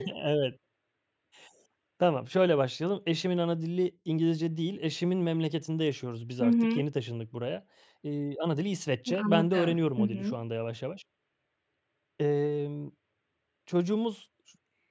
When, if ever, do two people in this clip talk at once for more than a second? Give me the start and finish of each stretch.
9.1-10.3

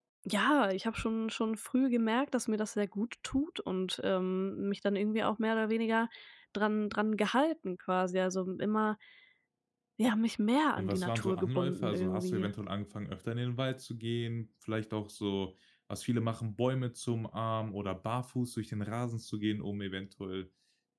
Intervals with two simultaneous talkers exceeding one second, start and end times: 10.8-12.5

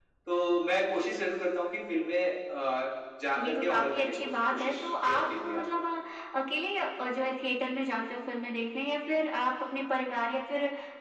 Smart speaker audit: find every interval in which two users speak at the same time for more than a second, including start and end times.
3.4-5.7

